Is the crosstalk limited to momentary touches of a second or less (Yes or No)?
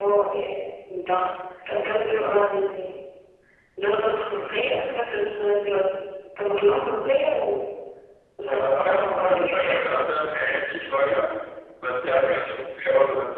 No